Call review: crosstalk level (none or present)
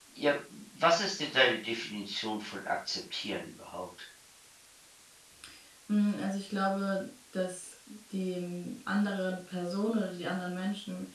none